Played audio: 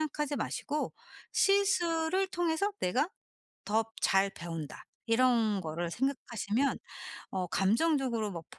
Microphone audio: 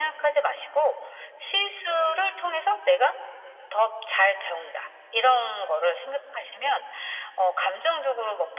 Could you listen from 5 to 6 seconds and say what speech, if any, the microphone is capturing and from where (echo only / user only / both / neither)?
echo only